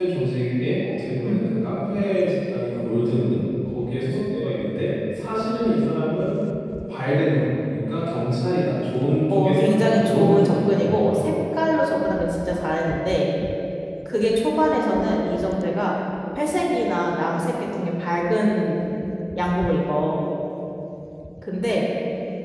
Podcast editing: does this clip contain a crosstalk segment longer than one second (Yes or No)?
Yes